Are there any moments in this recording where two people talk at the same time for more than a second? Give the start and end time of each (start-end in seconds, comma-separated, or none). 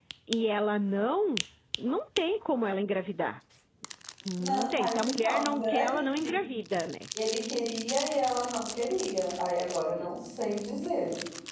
4.4-6.4